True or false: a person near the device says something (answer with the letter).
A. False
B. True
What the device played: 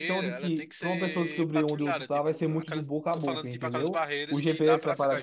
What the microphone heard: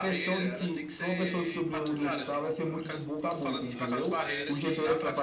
B